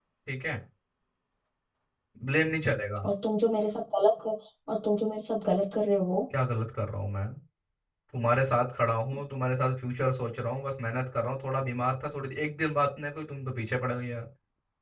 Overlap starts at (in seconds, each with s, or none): none